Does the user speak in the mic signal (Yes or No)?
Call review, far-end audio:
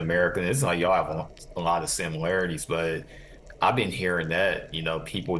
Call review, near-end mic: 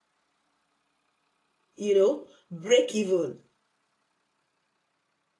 Yes